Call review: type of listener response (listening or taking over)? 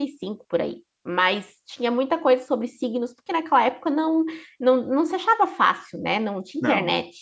taking over